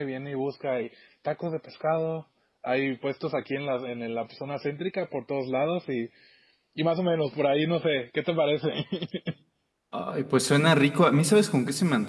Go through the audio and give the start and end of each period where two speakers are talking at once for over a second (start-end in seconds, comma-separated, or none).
none